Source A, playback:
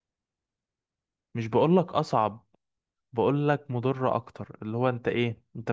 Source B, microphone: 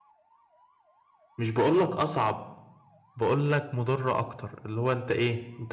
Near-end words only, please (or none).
none